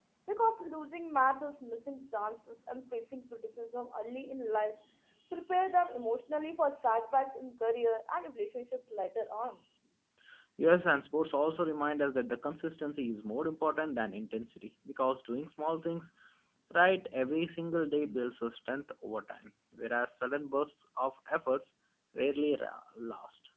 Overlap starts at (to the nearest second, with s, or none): none